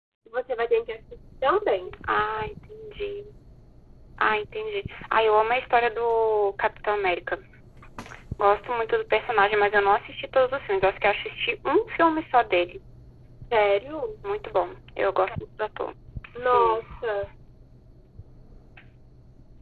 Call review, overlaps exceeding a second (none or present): none